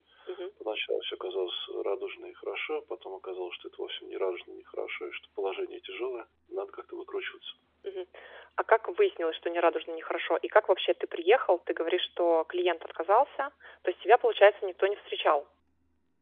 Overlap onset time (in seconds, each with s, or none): none